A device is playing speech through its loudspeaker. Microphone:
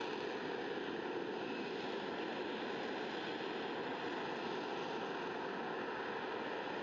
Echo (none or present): none